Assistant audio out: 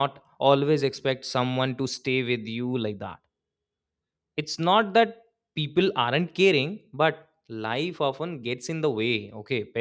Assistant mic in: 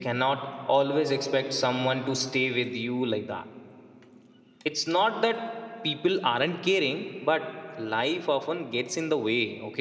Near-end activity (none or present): none